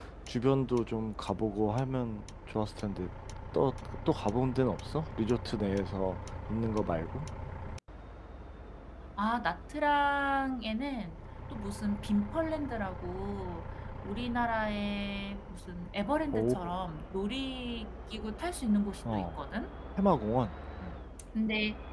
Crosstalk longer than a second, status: none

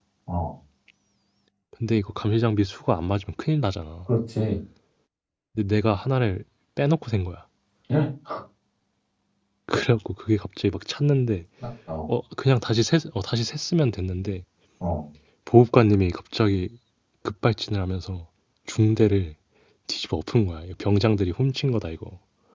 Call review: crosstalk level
none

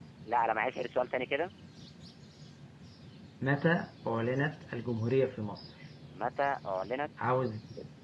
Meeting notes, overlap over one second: none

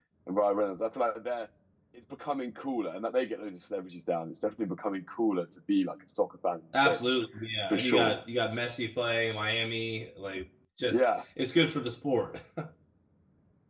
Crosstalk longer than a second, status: none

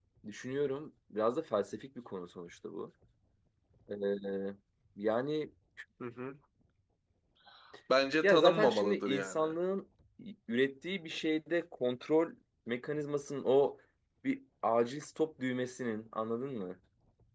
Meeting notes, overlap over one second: present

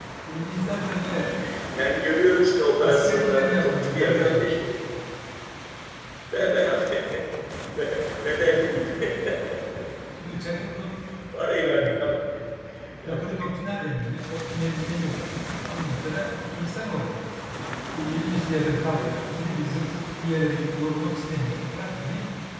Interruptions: present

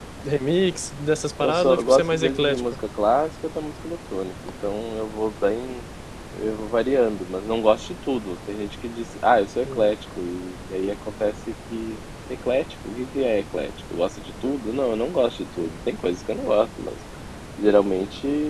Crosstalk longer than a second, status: present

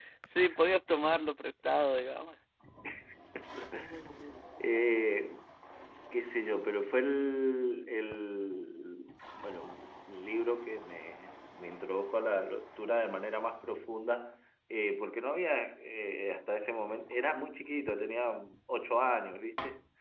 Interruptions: none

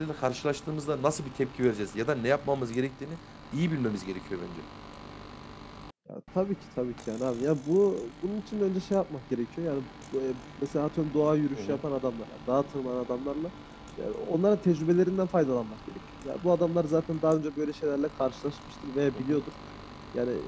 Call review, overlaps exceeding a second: none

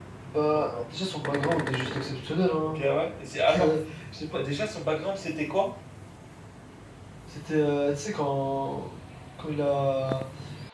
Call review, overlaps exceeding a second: none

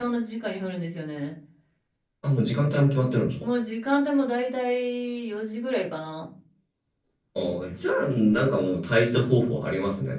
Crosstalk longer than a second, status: none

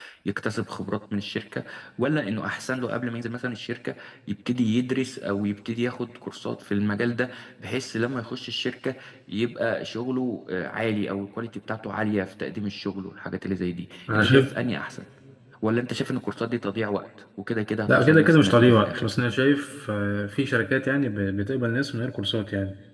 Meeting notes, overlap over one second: present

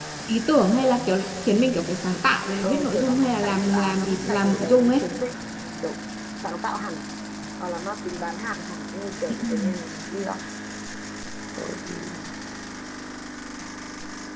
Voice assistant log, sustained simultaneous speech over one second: present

